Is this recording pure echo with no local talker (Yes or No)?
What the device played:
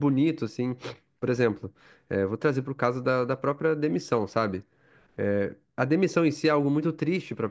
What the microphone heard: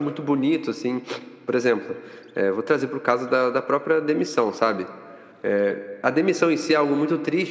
Yes